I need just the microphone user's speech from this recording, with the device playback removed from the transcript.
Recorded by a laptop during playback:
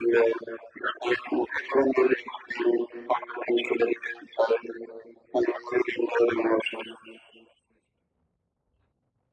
none

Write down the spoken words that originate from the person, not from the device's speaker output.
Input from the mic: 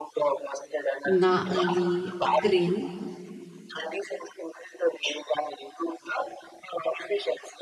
not really green

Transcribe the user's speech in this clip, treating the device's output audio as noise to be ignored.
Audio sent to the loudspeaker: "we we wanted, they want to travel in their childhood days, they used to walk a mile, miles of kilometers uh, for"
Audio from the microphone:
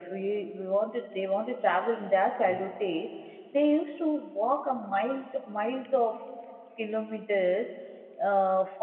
mm,

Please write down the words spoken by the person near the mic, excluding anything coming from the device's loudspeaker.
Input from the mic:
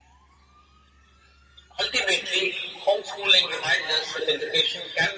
none

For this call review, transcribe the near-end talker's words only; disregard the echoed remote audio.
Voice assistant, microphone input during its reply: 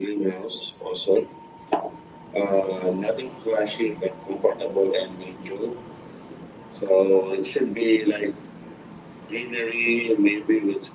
none

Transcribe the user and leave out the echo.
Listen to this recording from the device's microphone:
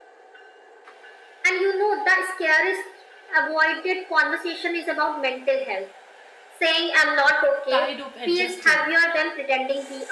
tired of adjusting,

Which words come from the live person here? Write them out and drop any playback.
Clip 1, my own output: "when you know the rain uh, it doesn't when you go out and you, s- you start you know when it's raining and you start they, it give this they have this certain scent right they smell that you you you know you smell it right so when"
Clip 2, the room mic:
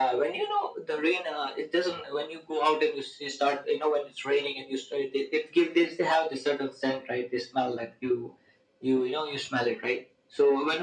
none

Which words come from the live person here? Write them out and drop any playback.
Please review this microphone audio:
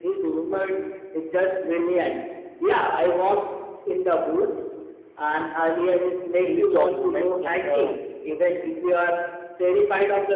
placed on women in her

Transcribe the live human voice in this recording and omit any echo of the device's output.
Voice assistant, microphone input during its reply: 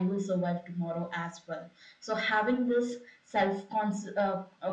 none

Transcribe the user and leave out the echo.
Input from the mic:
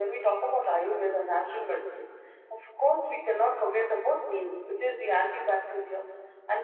none

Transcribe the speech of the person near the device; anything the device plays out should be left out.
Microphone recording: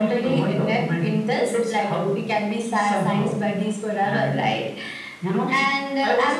none

